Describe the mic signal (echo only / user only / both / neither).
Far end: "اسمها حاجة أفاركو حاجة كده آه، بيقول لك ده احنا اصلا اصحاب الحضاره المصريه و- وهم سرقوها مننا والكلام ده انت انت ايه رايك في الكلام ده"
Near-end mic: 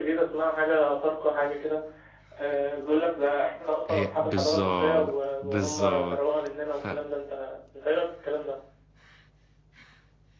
both